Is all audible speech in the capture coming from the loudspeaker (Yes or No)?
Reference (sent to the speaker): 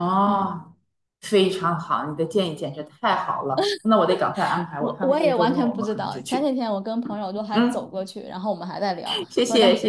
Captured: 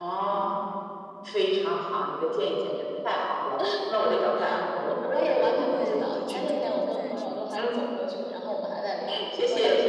No